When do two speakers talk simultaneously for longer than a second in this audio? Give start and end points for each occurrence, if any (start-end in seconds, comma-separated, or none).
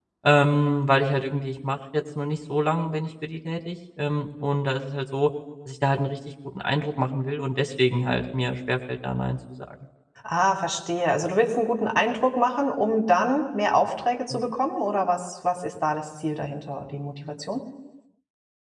none